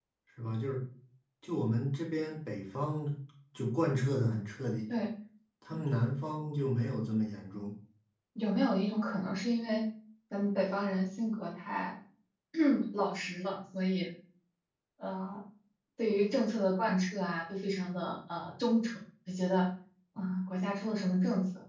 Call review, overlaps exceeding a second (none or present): none